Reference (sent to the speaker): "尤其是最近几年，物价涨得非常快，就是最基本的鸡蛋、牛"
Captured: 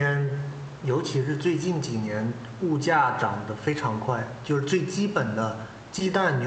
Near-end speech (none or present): none